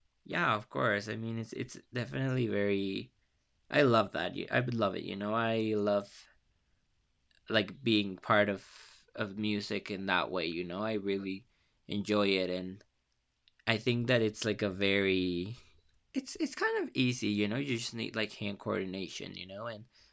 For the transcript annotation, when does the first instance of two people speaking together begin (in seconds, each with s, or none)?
none